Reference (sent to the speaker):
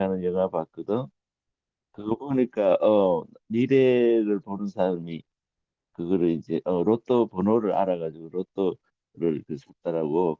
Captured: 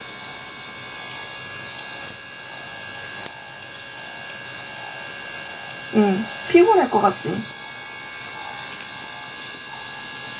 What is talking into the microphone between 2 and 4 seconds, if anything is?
neither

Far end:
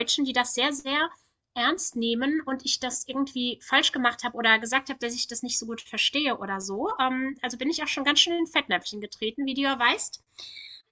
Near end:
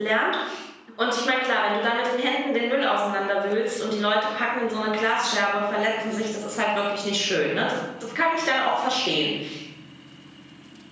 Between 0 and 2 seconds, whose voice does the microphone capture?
user only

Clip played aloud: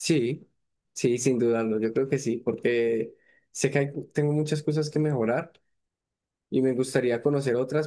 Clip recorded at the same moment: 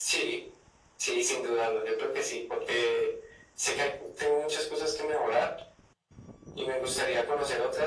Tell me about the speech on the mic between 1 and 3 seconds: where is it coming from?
echo only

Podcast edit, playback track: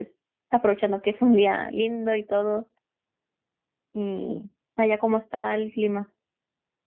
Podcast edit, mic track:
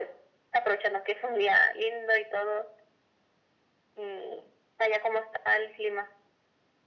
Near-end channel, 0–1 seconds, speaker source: echo only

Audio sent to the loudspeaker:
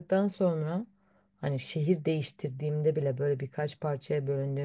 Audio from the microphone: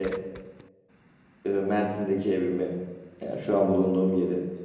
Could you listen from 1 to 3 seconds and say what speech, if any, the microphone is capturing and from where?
user only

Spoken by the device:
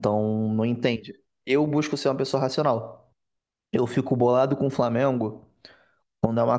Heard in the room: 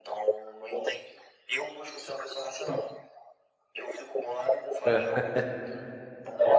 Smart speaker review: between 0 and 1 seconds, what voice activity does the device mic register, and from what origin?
echo only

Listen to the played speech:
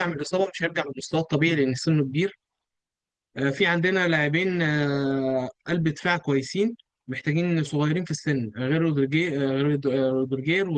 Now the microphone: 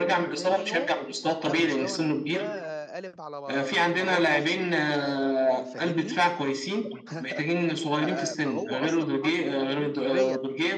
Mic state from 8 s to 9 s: both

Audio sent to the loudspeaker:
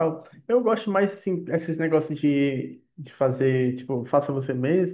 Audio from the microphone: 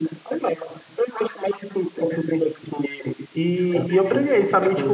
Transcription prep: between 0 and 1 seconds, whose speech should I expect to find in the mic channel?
echo only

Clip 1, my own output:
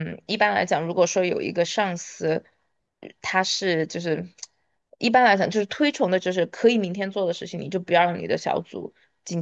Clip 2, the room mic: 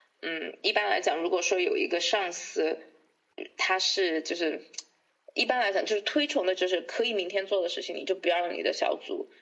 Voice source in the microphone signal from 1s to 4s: echo only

